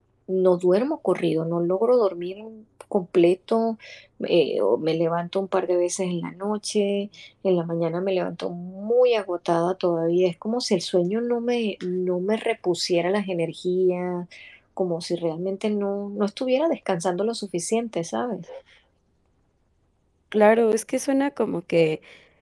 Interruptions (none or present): none